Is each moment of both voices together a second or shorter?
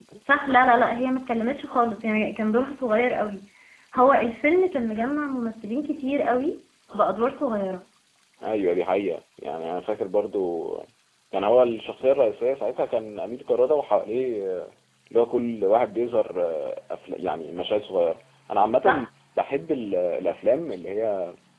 Yes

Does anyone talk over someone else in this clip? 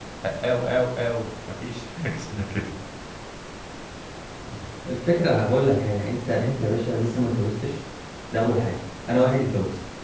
No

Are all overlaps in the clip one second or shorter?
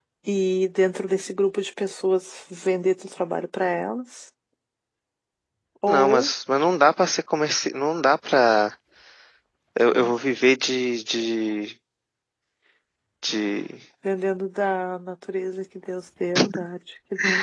Yes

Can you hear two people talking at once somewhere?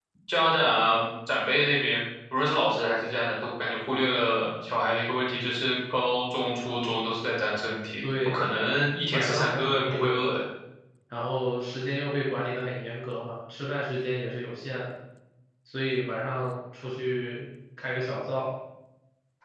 Yes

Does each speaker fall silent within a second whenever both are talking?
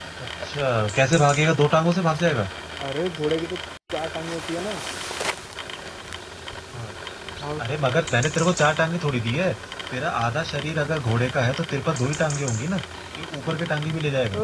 Yes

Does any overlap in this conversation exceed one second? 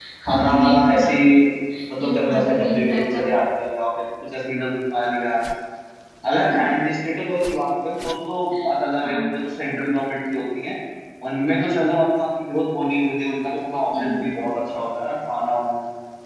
Yes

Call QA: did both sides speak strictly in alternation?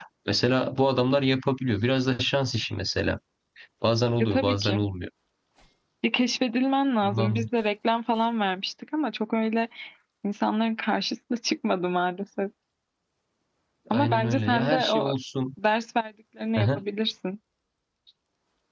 No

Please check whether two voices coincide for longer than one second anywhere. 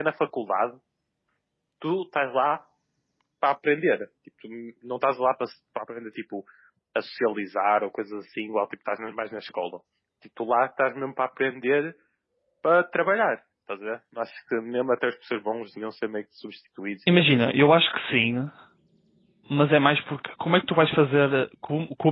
No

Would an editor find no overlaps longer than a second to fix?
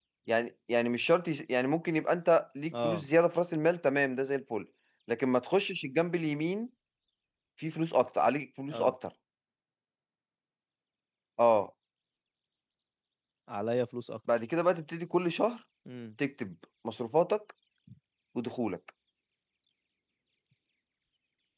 Yes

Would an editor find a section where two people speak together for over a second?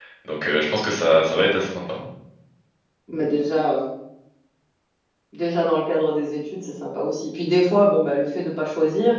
No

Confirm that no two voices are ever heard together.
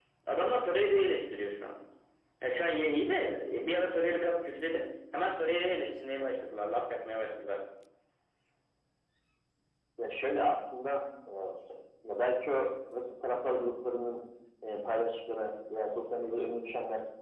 Yes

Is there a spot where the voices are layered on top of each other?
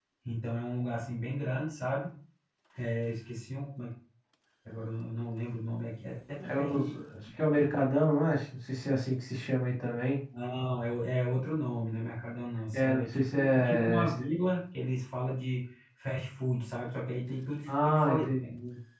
Yes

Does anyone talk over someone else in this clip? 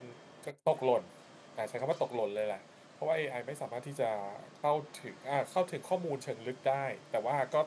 No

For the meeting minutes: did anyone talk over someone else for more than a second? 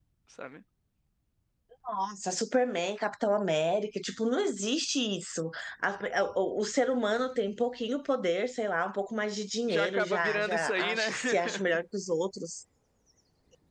Yes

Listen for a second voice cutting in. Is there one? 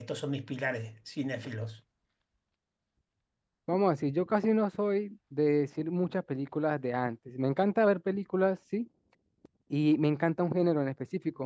No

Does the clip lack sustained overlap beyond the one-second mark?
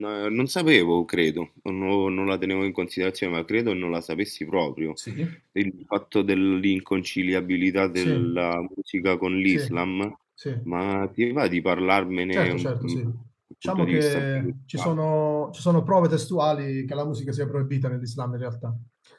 No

